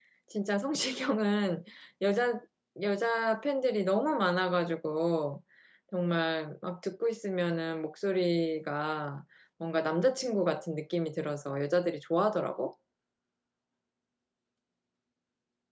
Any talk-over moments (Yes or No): No